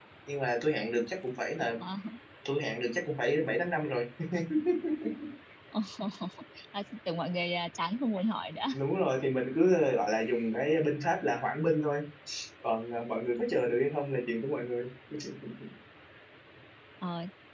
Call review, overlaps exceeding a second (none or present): none